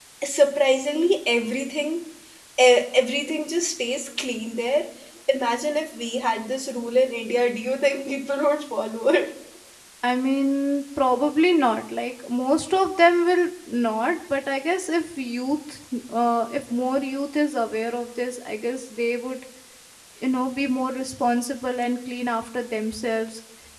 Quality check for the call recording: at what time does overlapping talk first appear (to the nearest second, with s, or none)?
none